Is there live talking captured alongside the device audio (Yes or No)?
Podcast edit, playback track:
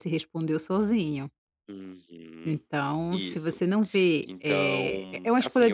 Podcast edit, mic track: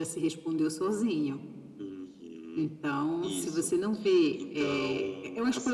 No